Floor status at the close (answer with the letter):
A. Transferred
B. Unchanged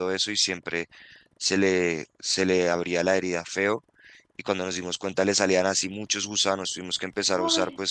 B